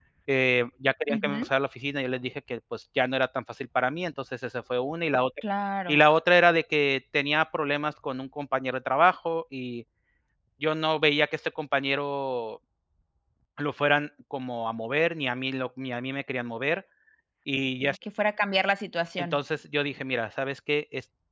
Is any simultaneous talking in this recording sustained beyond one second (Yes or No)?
No